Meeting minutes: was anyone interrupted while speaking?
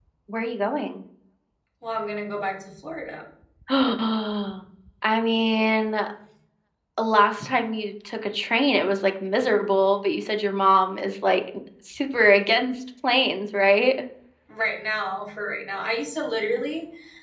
No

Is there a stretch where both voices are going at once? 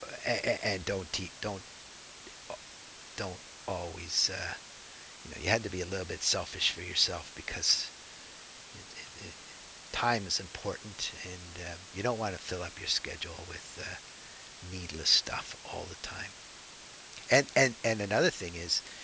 No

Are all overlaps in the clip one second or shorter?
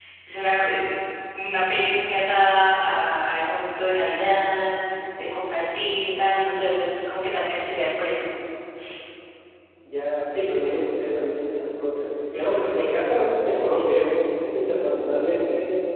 Yes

